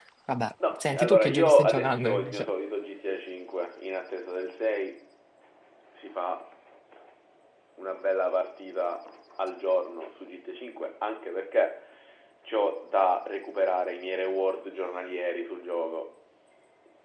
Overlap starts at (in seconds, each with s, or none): 0.8 s